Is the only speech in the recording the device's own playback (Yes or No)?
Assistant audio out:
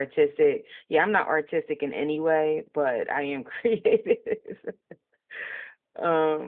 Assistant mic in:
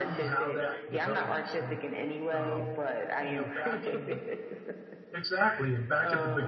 No